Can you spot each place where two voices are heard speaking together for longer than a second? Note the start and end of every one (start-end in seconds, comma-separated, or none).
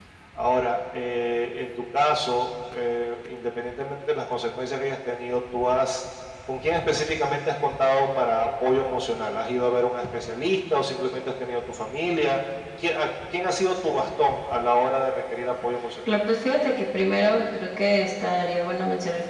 none